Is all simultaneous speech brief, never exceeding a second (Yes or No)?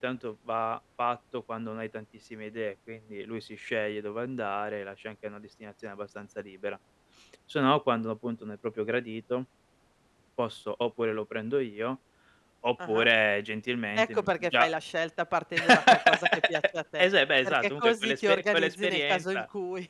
No